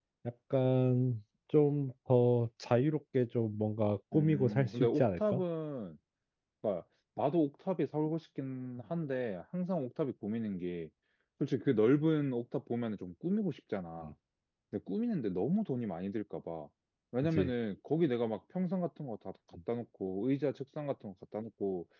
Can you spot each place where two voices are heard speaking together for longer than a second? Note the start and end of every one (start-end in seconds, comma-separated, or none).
4.1-5.4